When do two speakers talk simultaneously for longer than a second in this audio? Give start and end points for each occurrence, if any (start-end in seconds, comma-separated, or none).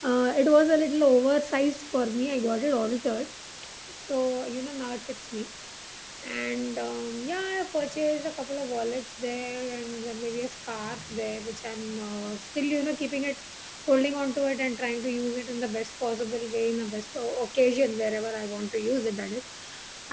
none